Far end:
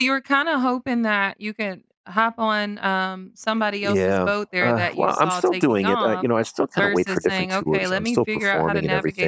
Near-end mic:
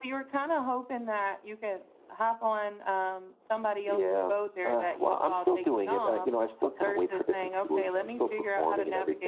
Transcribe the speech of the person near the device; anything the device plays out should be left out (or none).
none